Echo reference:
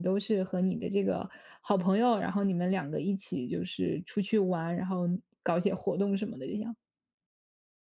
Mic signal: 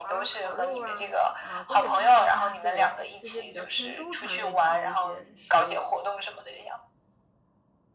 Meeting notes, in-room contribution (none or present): present